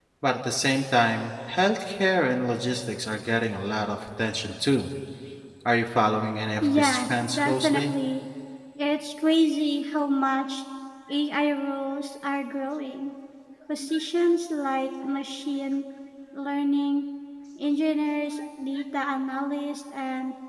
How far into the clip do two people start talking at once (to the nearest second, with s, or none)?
7 s